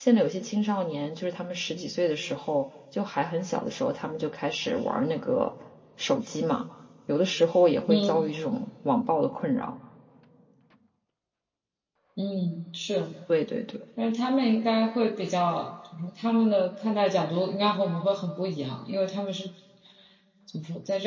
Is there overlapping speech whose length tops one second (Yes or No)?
No